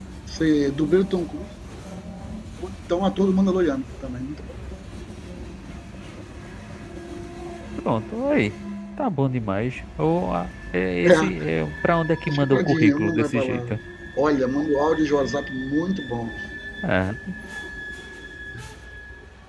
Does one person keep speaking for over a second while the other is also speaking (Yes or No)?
Yes